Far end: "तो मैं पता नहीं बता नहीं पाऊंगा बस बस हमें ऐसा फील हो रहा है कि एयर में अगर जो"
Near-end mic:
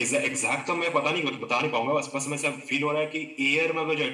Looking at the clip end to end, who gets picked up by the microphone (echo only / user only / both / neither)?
echo only